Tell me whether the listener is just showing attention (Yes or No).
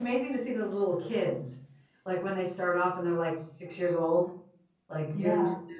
Yes